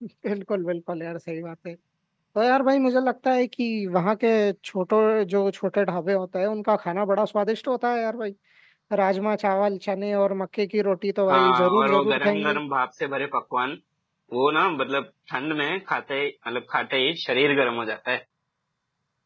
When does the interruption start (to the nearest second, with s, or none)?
11 s